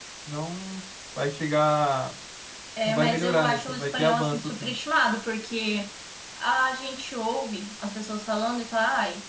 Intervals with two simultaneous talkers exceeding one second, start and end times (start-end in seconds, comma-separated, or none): 2.8-4.7